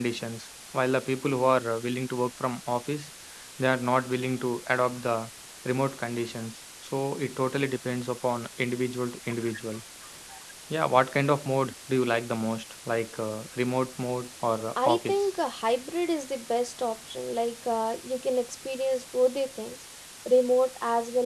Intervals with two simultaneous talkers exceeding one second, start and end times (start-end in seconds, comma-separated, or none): none